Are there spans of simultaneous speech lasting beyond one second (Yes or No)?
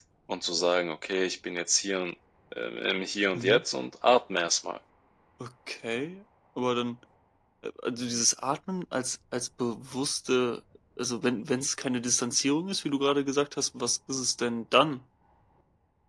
No